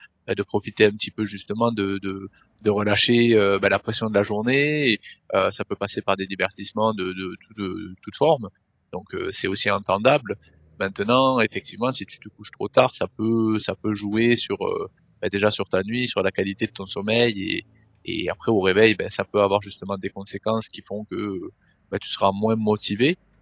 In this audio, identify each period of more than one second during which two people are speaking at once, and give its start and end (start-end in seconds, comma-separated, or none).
none